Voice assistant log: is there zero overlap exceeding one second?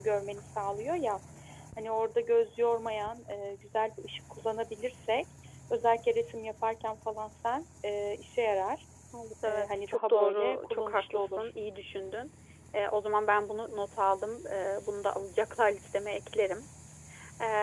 No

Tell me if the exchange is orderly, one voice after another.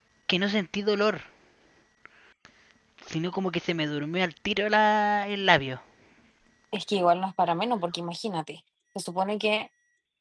Yes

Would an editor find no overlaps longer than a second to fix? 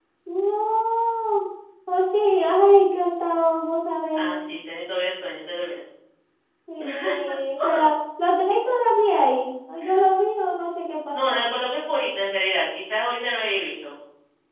Yes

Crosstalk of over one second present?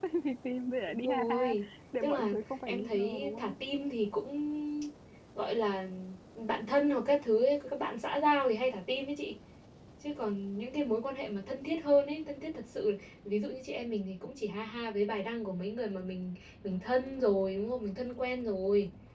Yes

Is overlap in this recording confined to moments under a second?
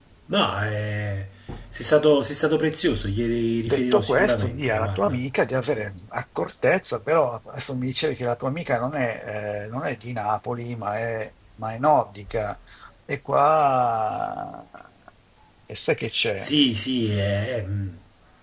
No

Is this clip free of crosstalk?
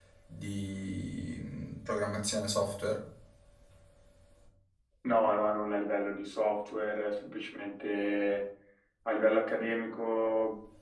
Yes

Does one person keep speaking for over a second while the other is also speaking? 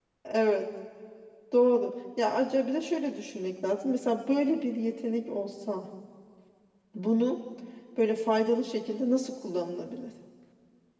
No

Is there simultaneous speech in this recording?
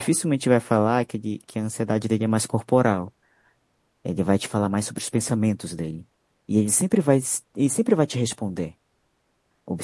No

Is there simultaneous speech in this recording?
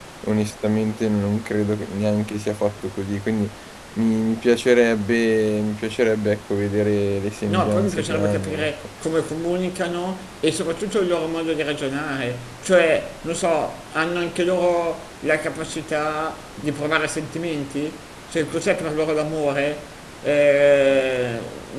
Yes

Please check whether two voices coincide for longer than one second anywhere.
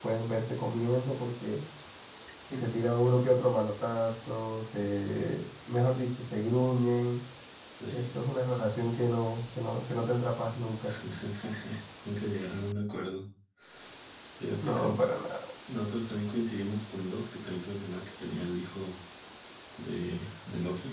No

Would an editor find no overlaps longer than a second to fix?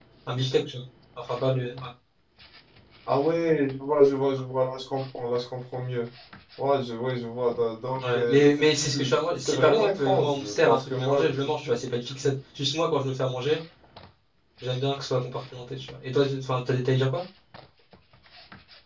No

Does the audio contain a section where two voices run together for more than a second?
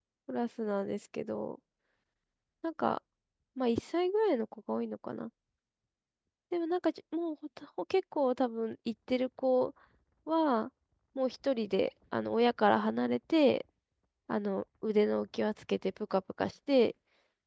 No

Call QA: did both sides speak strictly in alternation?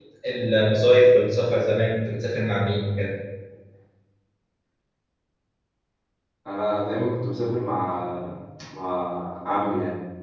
Yes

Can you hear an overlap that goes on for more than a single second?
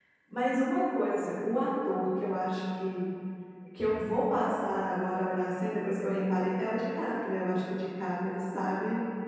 No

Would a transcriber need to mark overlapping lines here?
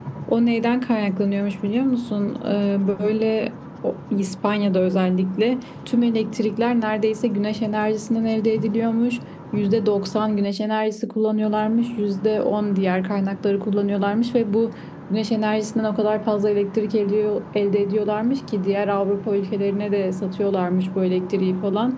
No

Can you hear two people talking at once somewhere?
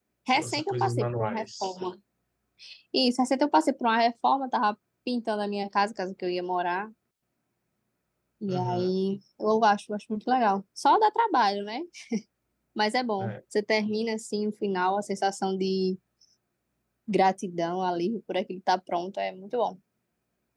Yes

